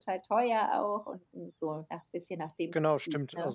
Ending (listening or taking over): taking over